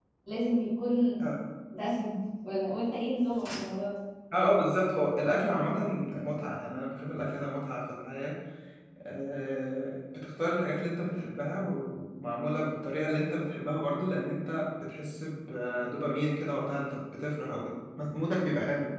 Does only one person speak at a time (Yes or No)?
Yes